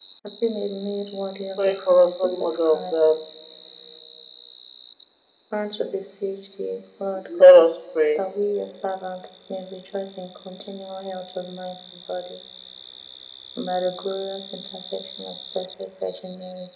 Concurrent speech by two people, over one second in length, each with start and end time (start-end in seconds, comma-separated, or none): 1.6-3.1